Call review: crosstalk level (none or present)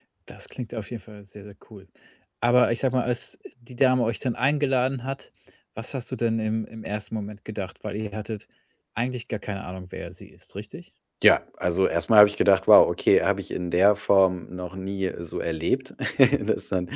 none